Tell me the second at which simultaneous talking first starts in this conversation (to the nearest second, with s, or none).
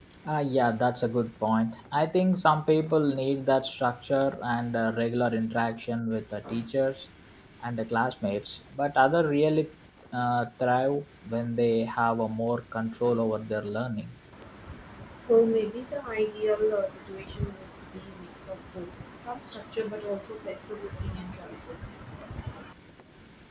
none